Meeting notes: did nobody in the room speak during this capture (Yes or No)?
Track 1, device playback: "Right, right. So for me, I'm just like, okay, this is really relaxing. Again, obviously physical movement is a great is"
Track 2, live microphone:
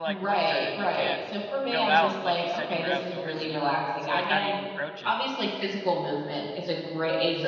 No